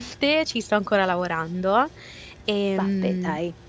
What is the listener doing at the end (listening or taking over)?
listening